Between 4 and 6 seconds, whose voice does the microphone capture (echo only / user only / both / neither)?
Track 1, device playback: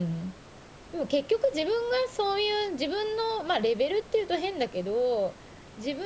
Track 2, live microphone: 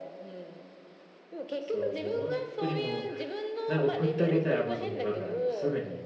both